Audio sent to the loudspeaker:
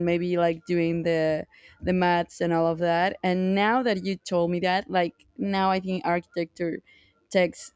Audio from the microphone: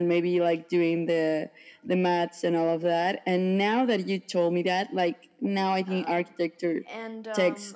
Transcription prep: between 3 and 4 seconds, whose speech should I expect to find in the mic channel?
echo only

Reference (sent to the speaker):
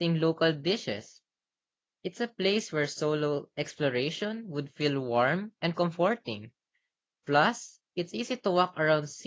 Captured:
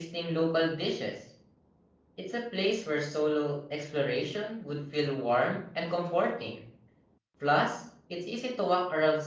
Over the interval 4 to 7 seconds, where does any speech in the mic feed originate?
echo only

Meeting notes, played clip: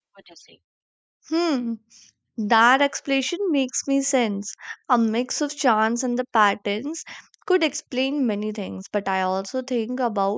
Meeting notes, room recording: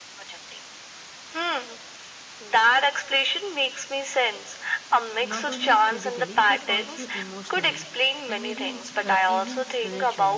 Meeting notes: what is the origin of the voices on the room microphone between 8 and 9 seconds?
both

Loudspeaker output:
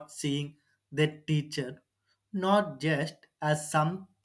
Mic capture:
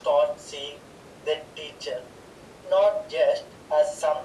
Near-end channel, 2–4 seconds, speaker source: echo only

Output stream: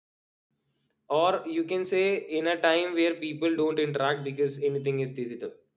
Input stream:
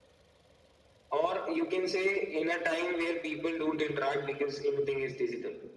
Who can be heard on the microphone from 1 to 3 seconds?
echo only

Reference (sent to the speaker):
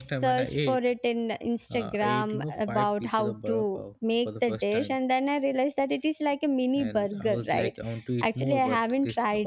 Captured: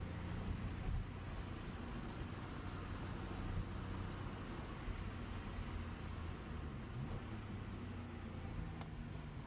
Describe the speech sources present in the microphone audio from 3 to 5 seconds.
neither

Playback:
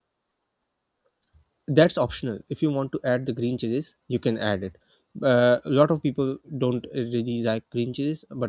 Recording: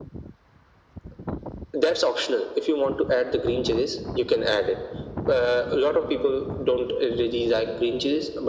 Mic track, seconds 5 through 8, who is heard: echo only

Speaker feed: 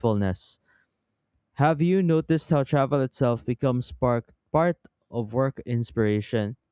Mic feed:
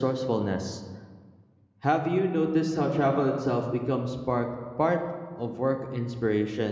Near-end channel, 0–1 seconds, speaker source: echo only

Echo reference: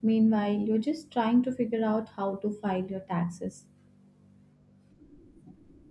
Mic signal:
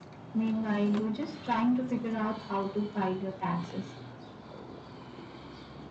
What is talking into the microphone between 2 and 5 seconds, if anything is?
echo only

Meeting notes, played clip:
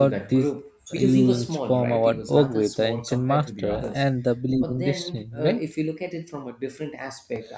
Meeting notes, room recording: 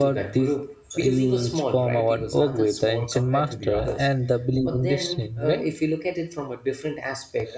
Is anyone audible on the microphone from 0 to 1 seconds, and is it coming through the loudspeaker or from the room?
echo only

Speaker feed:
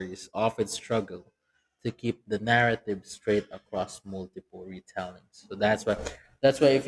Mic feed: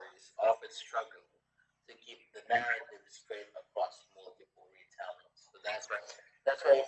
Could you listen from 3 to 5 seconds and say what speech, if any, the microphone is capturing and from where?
echo only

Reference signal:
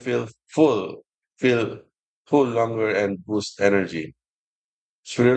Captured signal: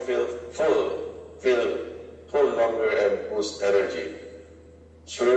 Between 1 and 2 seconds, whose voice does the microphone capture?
echo only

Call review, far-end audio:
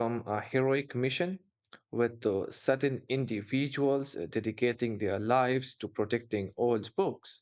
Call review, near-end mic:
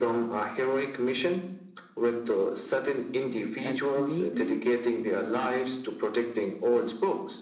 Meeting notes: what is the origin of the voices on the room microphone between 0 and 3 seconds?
echo only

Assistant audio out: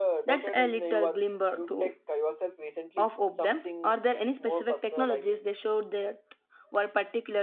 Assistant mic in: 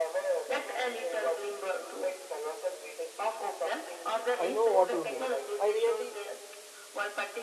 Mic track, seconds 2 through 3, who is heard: echo only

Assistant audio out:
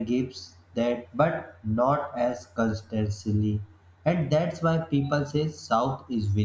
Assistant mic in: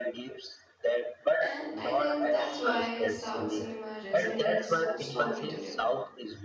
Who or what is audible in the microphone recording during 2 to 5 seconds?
both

